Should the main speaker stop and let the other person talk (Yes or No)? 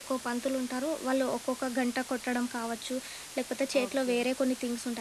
No